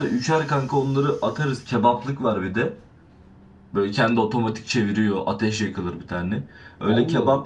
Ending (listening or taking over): listening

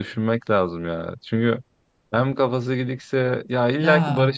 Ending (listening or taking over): listening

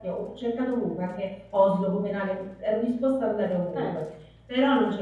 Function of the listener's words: listening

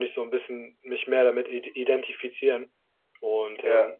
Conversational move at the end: listening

